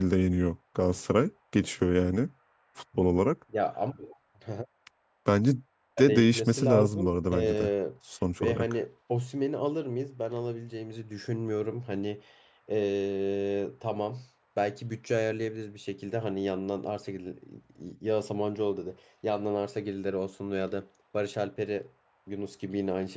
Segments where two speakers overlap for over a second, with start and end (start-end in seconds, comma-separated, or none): 6.0-7.7